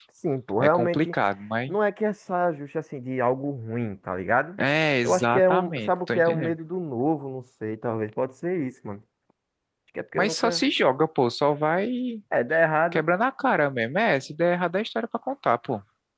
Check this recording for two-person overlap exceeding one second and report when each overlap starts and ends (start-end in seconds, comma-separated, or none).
5.0-6.5